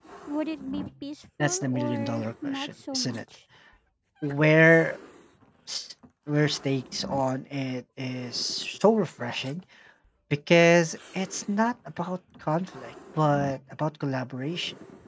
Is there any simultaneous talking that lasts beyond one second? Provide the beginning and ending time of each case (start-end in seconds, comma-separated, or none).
1.4-3.2